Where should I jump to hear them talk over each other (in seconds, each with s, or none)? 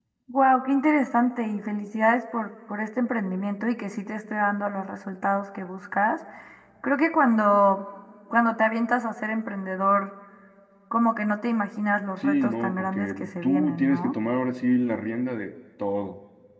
12.2 s